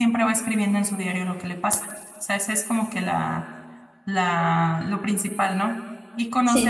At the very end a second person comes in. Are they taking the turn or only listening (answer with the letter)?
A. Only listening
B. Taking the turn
A